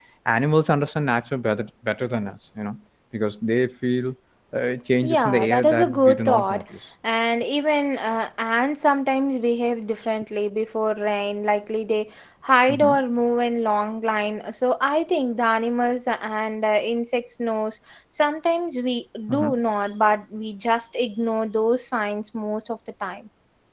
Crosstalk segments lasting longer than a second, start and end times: 5.0-6.6

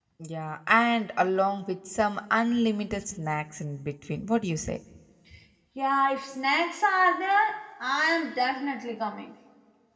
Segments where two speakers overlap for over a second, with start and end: none

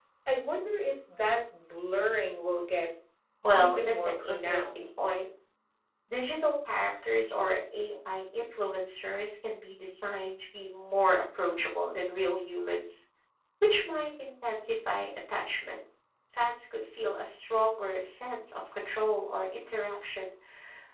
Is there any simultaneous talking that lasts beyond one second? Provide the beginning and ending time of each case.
3.5-4.9

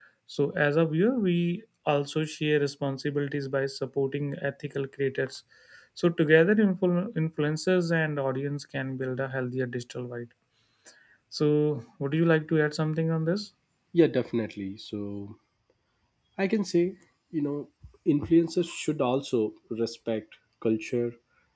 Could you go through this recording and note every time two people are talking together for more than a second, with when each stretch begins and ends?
none

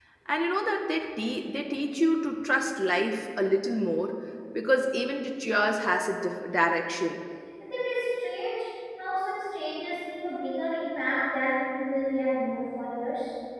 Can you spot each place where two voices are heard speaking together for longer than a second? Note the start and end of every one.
none

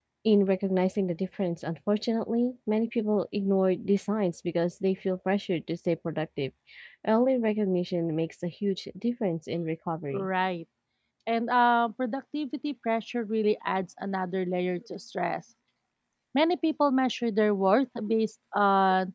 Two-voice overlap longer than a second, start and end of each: none

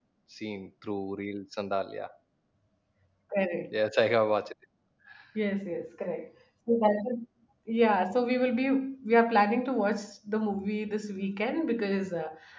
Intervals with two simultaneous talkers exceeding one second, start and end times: none

